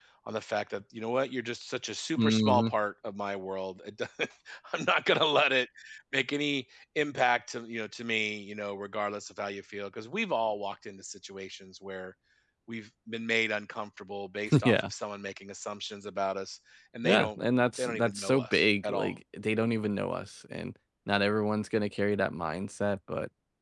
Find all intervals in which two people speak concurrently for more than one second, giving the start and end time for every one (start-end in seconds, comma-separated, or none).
17.0-19.1